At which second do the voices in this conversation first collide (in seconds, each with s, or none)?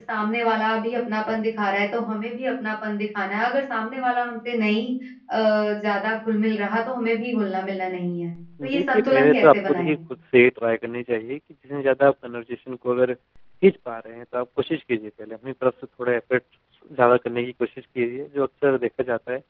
8.6 s